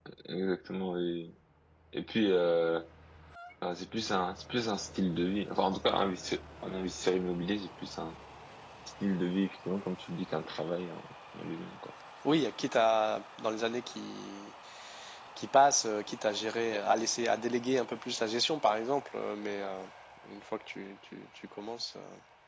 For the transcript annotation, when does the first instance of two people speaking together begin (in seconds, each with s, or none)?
none